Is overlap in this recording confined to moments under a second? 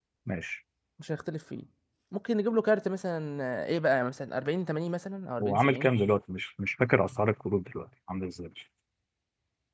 Yes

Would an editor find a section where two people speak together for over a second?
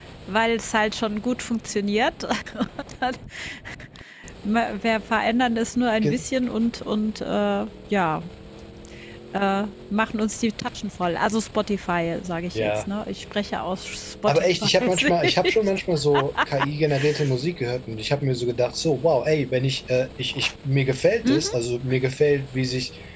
Yes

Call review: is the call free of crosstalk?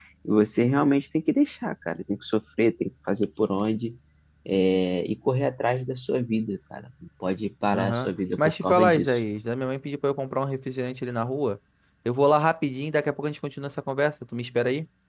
No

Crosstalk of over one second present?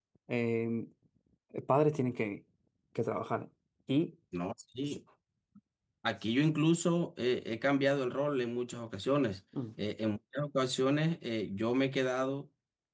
No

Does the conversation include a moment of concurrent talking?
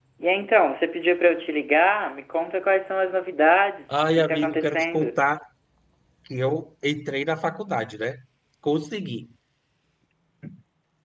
Yes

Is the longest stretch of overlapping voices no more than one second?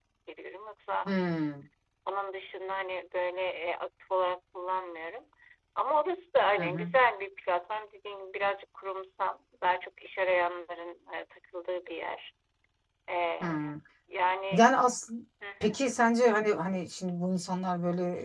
Yes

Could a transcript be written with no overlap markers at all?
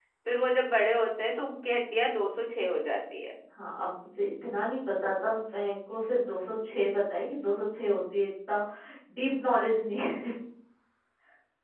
Yes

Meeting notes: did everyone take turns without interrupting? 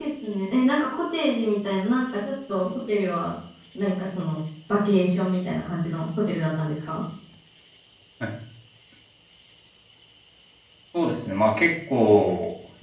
Yes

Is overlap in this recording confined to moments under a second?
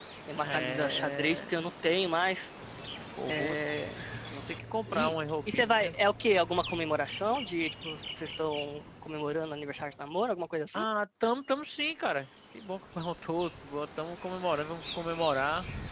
No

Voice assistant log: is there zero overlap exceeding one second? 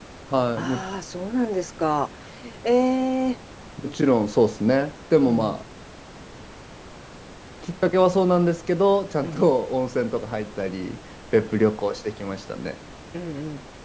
Yes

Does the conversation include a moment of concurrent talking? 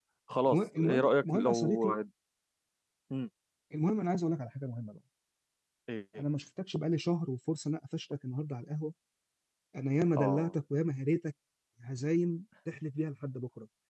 Yes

